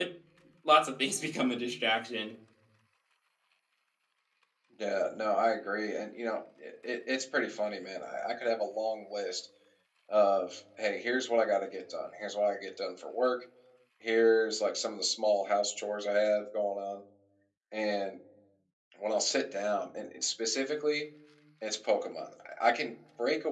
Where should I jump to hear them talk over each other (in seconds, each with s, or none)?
none